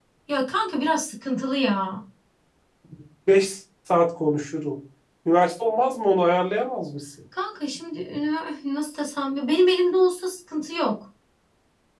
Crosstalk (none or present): none